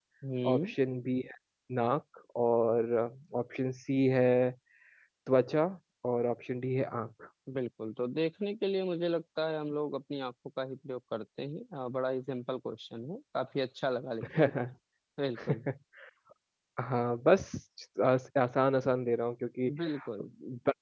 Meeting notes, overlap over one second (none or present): none